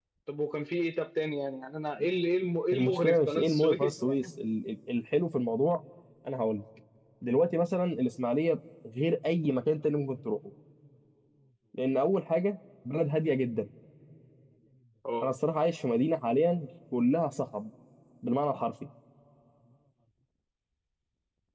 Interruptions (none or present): present